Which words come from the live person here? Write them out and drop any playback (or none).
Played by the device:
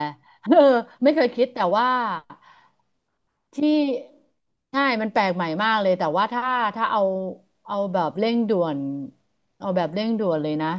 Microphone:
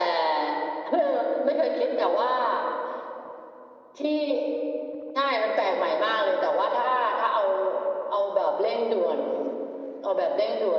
none